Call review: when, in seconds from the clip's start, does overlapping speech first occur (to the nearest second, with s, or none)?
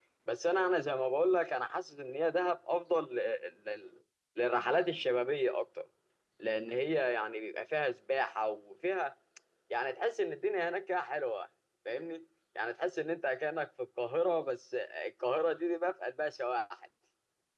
none